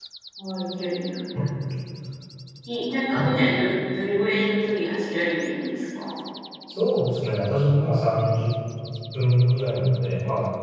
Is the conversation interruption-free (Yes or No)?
Yes